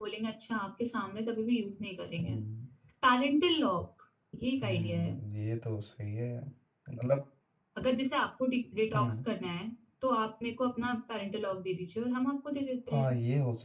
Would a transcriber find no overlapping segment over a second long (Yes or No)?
Yes